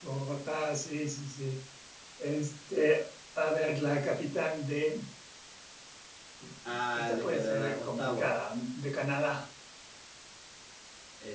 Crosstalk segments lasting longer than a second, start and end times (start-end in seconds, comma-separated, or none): 7.0-8.3